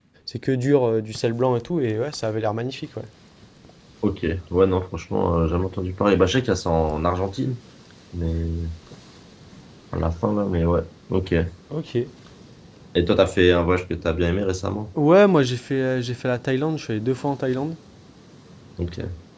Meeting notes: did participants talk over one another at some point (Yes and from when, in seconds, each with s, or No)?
No